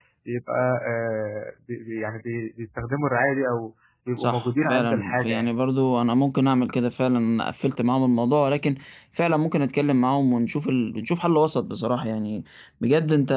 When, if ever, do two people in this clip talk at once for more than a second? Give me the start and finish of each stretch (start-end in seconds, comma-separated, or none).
4.2-5.5